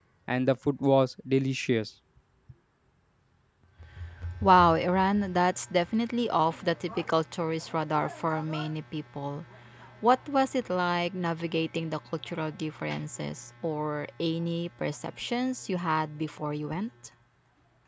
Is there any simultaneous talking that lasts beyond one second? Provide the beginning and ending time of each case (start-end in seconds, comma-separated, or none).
none